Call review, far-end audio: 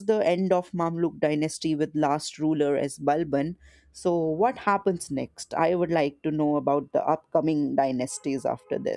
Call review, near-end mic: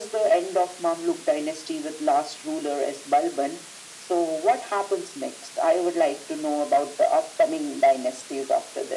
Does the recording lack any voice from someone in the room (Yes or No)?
Yes